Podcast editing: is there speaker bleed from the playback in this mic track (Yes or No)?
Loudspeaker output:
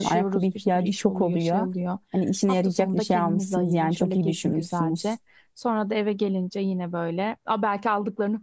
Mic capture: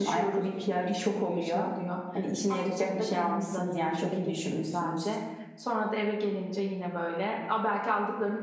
Yes